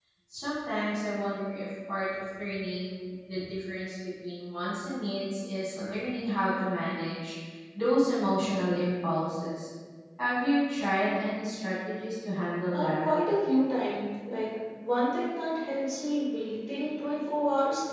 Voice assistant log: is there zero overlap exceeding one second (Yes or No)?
Yes